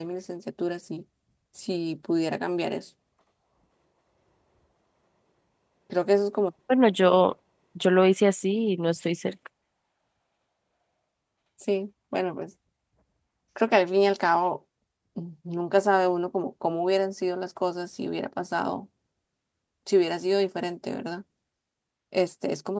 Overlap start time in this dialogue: none

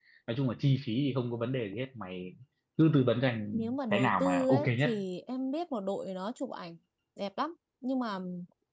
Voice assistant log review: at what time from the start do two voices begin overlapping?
3.5 s

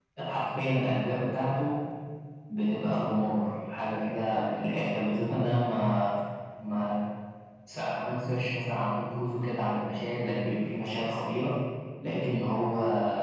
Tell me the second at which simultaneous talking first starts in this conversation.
none

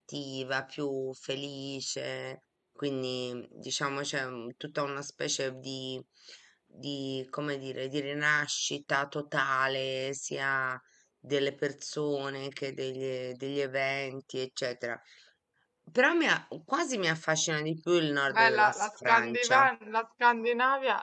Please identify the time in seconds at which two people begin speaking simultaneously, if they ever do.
18.3 s

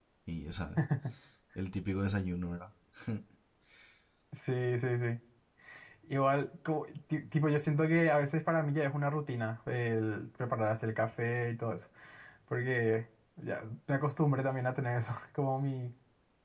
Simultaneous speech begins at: none

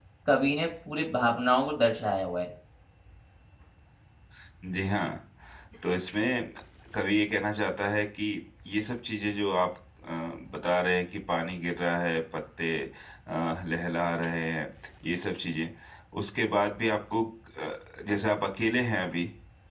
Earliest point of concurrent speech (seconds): none

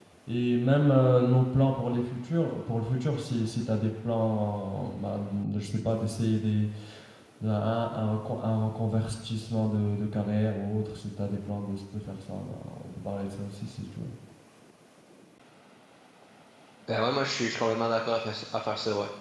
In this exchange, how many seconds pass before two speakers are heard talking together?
none

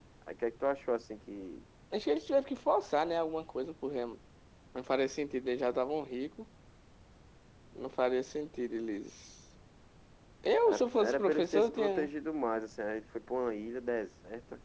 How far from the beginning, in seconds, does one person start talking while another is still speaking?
10.7 s

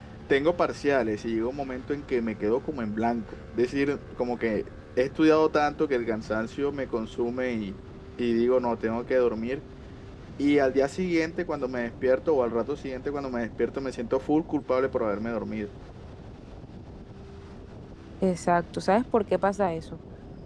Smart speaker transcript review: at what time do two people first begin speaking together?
none

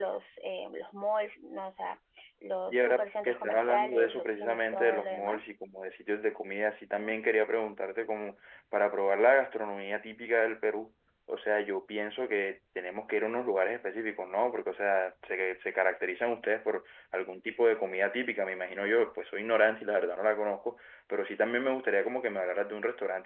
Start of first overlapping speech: 2.7 s

